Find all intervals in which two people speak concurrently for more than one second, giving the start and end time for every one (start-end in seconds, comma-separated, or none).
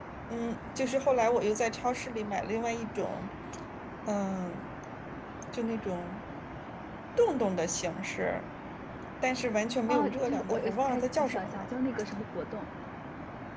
9.9-11.7